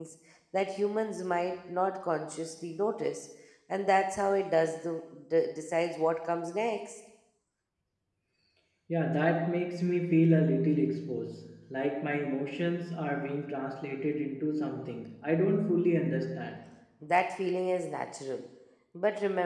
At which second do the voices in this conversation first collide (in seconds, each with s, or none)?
none